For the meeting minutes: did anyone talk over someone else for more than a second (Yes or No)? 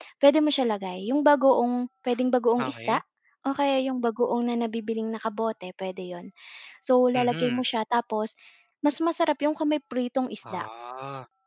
No